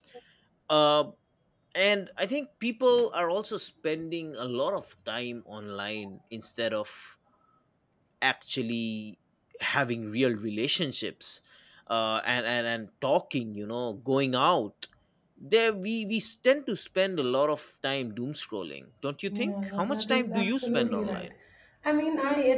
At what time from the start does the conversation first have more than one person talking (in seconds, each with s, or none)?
19.3 s